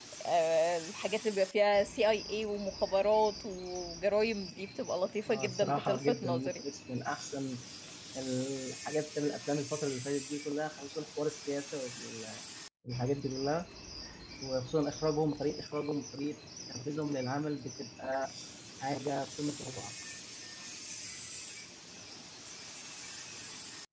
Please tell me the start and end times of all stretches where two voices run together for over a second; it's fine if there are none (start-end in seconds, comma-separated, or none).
5.3-6.5